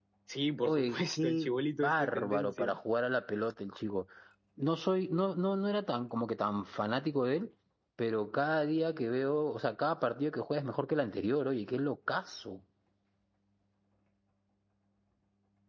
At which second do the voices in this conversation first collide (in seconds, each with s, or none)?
0.6 s